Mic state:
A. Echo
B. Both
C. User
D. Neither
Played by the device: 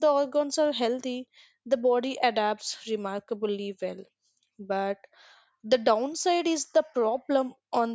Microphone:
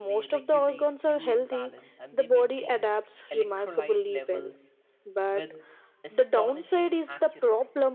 B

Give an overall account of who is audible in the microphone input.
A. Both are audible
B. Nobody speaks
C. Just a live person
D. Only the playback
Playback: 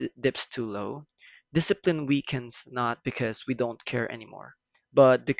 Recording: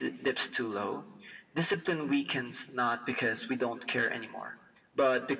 D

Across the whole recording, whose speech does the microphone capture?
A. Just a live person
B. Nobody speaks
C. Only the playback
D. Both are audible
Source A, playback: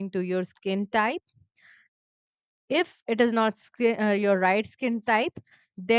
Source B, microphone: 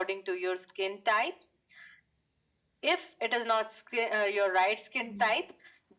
D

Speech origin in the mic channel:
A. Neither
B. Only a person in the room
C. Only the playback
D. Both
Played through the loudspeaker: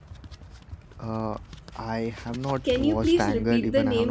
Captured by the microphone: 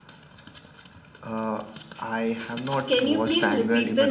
C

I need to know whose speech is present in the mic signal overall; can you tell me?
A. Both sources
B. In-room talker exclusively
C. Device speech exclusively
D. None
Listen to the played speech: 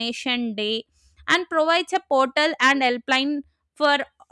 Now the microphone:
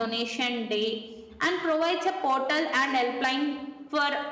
C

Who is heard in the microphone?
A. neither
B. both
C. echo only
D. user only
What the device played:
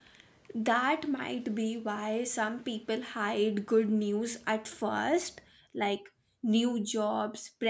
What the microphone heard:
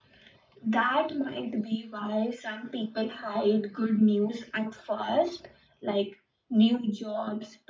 C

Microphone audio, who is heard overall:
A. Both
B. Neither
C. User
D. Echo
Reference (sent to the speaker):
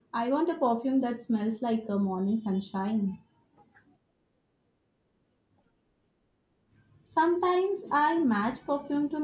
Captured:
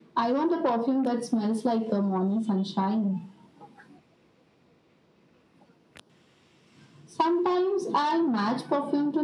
D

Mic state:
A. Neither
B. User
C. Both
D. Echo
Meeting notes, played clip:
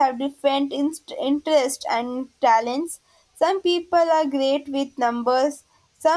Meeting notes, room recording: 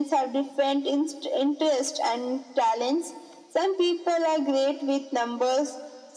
D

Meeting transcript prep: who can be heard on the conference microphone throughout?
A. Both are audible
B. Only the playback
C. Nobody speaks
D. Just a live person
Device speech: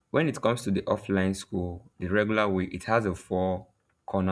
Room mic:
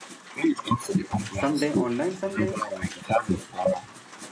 A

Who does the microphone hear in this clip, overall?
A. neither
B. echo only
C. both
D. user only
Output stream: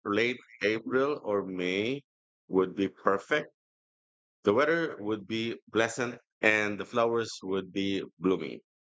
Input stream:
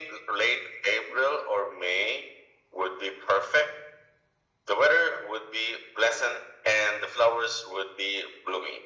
B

